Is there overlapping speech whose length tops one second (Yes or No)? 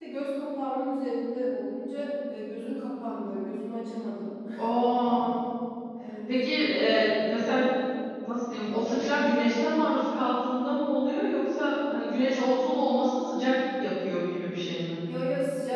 No